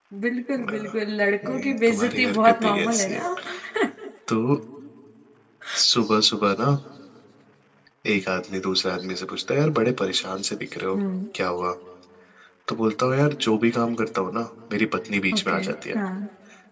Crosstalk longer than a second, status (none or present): present